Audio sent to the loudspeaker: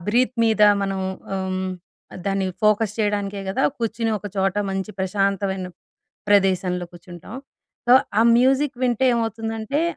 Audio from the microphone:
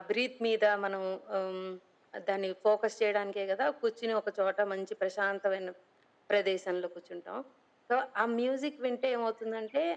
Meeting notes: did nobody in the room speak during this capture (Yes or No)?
Yes